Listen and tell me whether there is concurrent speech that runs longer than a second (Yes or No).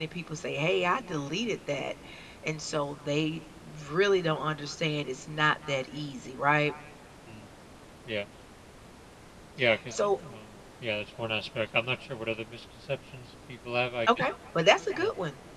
No